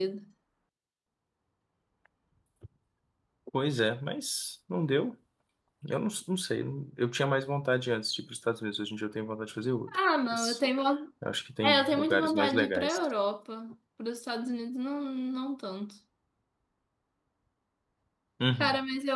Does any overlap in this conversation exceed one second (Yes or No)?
Yes